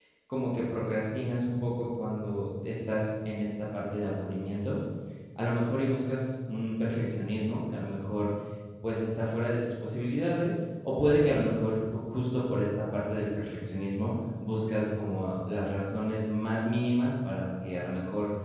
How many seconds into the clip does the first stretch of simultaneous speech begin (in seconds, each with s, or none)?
none